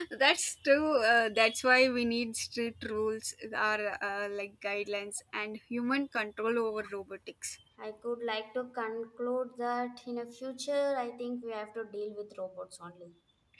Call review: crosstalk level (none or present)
none